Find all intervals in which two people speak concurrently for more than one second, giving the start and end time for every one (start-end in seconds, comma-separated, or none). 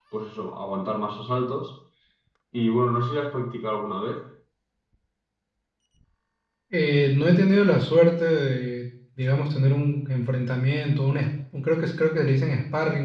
none